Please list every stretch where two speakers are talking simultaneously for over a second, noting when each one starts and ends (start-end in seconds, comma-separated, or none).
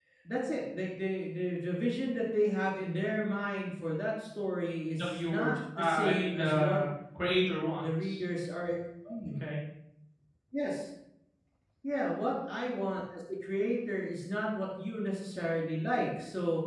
4.9-6.8